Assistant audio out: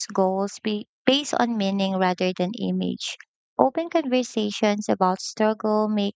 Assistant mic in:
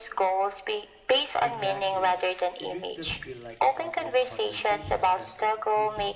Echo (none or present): present